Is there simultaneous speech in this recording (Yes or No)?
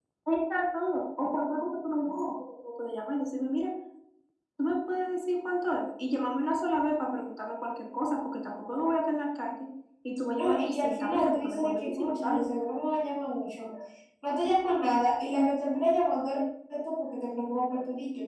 Yes